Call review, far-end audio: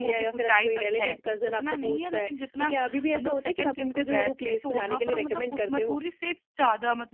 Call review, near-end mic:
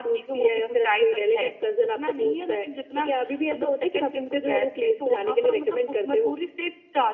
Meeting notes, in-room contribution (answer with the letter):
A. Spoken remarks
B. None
B